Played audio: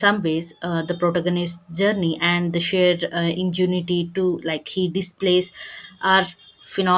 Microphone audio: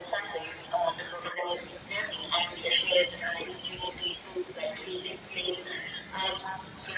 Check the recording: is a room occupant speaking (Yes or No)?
No